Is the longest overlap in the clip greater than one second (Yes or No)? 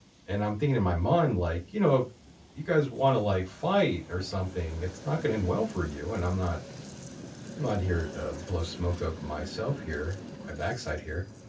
No